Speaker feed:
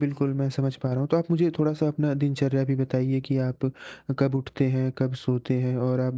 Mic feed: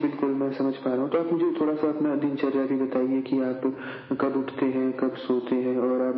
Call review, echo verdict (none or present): present